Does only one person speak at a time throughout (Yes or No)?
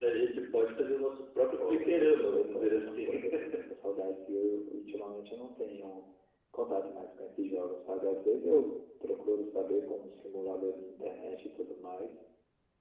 No